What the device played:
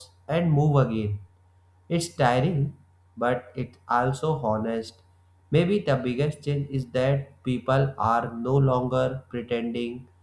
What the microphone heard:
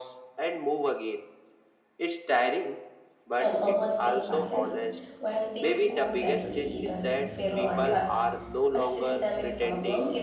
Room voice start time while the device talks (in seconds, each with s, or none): 3.4 s